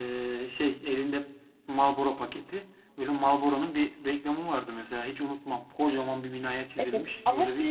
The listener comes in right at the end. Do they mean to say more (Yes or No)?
Yes